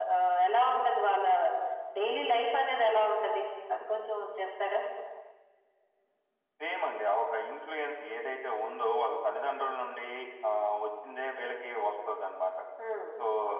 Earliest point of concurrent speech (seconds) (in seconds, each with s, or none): none